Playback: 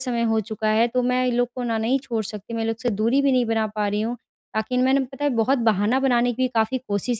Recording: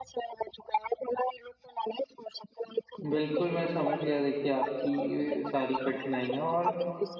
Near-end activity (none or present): present